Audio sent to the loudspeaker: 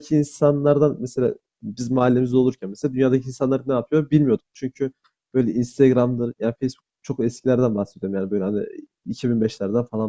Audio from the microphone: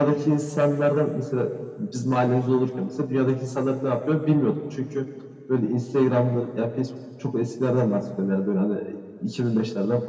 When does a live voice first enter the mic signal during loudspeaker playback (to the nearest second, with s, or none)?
none